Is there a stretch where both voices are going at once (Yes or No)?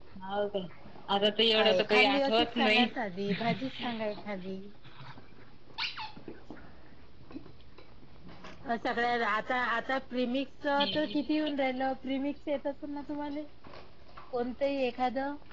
Yes